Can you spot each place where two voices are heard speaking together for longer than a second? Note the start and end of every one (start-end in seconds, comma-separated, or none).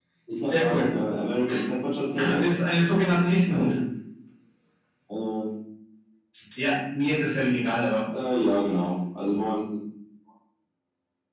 none